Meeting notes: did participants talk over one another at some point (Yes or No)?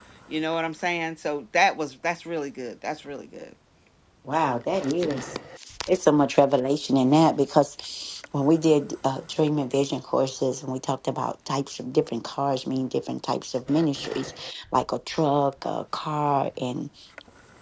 No